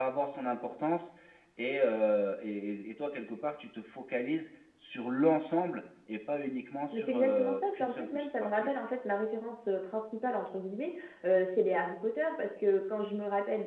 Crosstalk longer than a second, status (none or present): present